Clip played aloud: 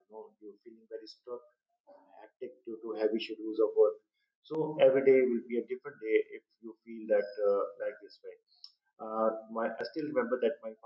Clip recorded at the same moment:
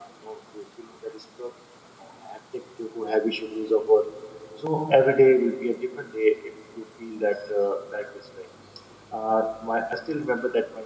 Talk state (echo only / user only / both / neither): echo only